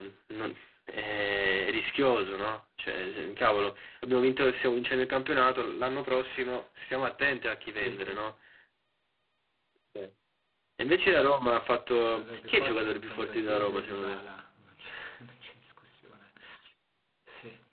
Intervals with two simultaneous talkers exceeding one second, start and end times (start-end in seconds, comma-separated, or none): 11.9-14.2